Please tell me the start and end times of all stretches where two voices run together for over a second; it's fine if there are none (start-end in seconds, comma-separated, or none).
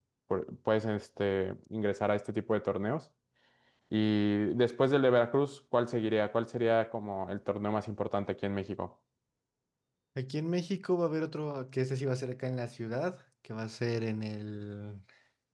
none